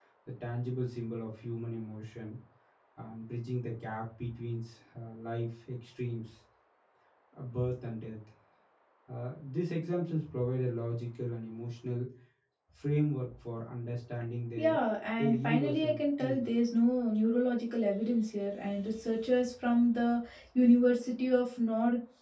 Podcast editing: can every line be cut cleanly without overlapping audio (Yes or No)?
No